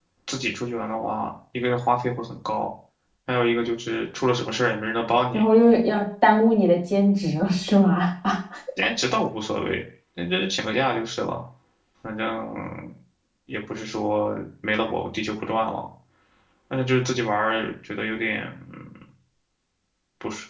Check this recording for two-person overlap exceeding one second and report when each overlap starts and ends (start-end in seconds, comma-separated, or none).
none